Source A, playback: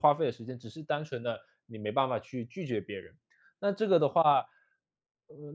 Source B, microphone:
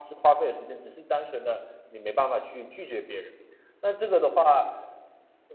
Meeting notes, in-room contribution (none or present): none